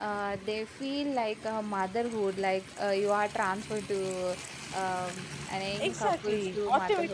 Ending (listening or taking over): taking over